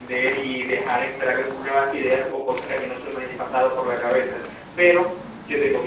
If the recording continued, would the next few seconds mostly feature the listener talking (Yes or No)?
No